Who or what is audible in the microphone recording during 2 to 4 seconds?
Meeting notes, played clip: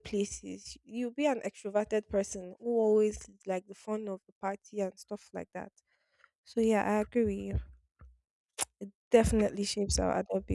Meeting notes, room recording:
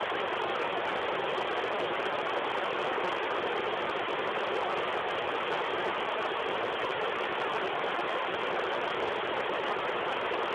neither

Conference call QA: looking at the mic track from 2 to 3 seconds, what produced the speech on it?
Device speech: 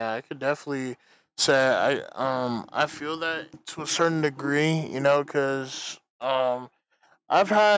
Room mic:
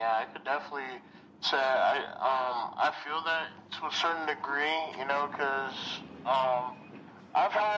echo only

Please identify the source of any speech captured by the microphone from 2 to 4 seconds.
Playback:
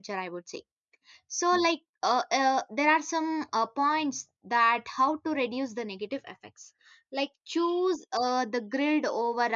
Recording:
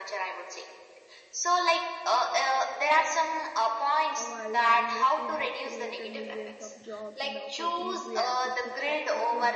echo only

